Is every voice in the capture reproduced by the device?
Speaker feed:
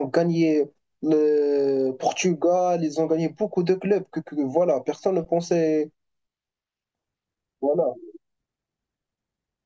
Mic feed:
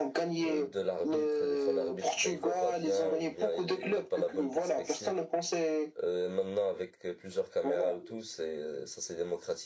No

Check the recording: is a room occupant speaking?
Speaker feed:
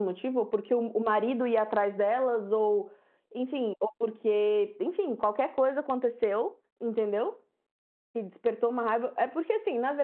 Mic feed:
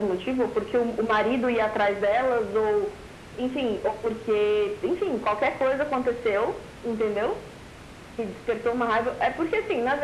No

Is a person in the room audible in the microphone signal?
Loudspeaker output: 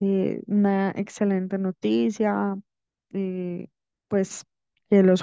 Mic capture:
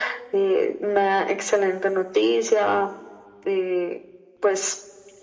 No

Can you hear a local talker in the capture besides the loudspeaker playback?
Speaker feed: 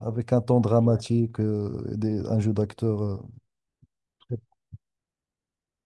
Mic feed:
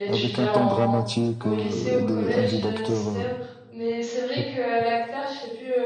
Yes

